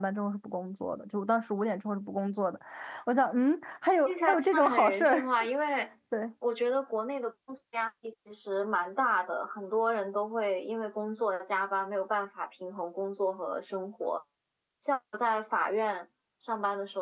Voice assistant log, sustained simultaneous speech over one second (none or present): present